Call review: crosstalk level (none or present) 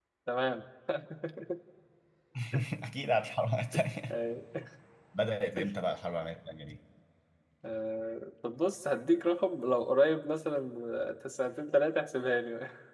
none